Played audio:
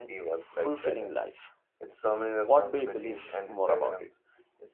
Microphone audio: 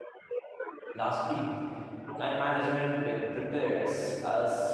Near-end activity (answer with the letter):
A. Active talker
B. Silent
A